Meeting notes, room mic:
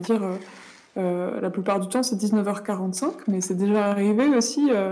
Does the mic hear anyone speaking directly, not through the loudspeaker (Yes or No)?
No